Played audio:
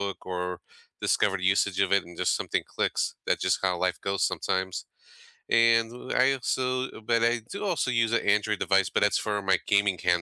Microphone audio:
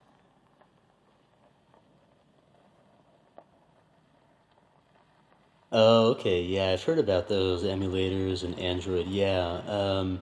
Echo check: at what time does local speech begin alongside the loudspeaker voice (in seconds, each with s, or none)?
5.7 s